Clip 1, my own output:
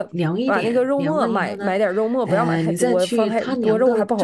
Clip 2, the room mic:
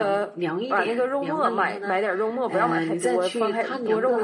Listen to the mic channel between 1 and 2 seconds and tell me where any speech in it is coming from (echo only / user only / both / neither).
echo only